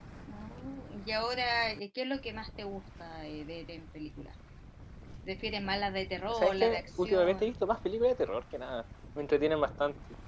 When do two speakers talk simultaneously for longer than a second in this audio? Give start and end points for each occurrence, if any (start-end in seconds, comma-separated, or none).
6.3-7.5